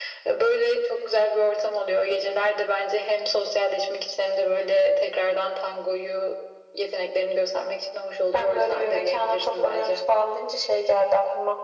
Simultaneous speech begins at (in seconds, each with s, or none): 8.3 s